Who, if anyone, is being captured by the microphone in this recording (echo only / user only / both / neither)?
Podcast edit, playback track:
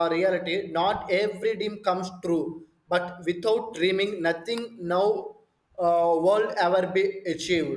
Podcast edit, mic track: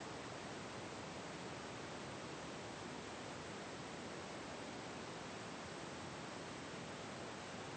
neither